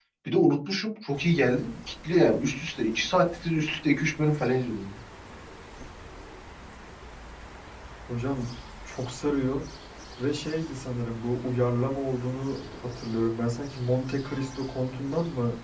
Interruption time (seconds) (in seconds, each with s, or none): none